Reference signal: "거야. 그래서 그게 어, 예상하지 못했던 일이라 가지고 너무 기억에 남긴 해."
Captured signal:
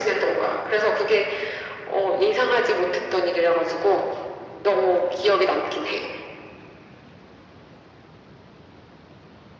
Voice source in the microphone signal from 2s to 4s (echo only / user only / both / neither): echo only